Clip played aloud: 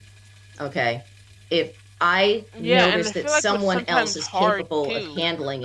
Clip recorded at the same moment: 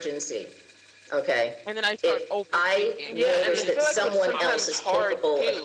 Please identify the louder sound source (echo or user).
echo